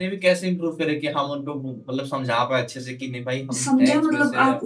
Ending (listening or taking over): taking over